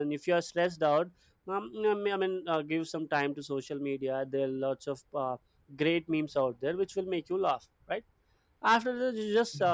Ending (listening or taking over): listening